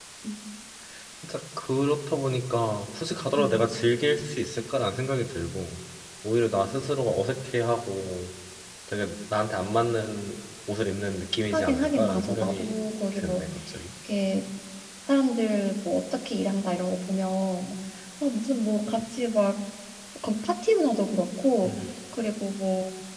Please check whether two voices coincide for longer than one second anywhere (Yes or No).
Yes